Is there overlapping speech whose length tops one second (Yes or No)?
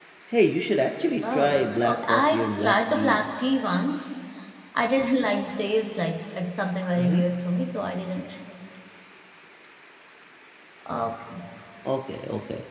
Yes